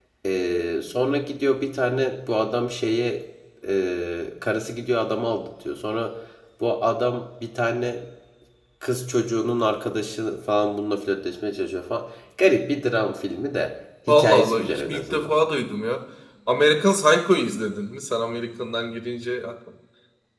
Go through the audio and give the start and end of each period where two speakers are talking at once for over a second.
14.1-15.4

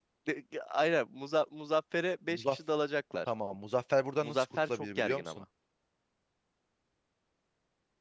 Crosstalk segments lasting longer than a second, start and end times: 4.2-5.4

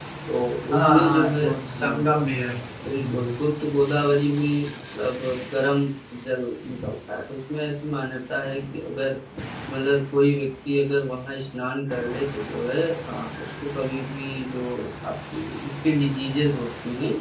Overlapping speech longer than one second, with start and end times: 0.7-2.0

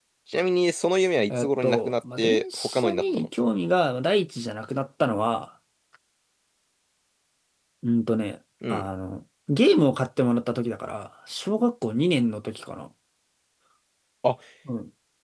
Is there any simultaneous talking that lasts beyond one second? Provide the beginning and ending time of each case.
1.3-3.3

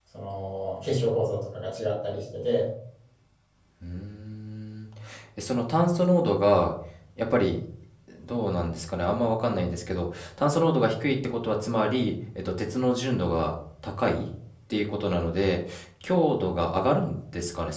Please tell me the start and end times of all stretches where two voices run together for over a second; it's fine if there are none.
none

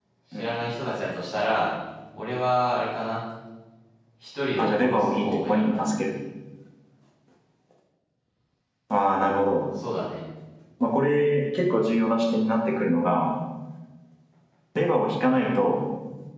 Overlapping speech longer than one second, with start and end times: 4.6-6.0

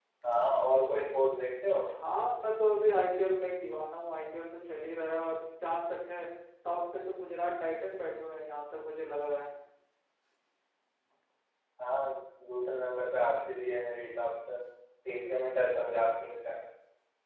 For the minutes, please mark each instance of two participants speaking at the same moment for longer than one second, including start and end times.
none

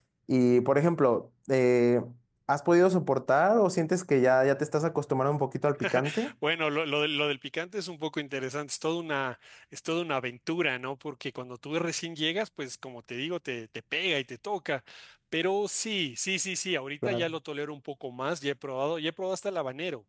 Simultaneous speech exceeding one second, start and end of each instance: none

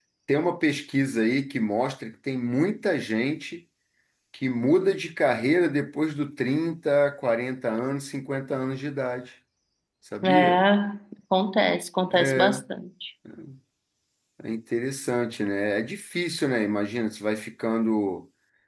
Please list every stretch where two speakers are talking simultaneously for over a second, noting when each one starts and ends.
none

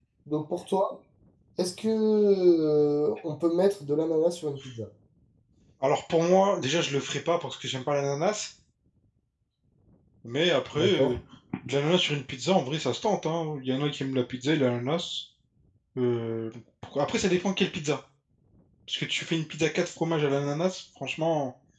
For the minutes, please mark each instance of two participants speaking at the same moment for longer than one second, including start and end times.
none

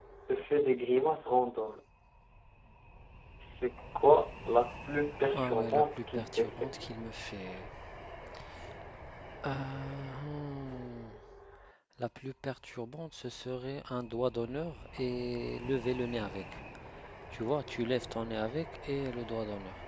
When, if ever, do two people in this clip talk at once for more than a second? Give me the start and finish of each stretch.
5.3-6.7

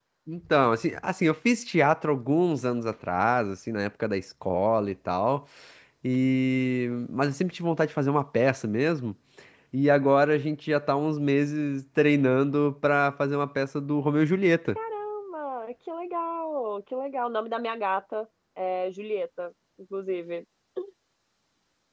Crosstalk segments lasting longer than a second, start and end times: none

